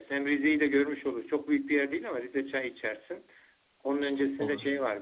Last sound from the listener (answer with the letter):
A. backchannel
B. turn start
A